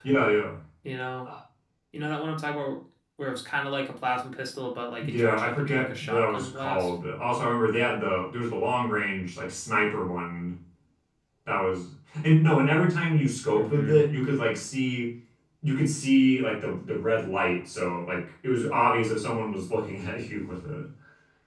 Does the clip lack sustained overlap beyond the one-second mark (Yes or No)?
No